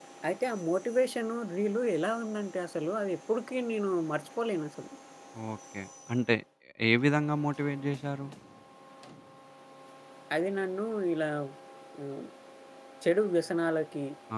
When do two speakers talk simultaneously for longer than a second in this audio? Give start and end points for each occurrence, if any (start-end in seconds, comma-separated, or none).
none